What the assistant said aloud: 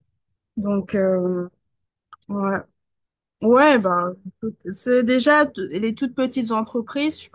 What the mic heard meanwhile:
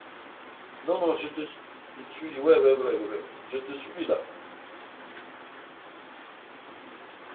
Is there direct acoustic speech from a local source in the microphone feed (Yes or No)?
Yes